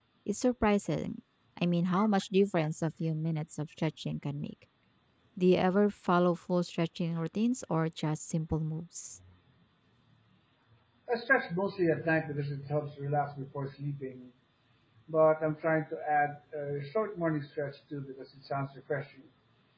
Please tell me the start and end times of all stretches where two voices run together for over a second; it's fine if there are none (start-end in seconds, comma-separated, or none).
none